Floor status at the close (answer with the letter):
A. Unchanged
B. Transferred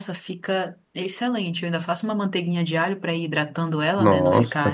B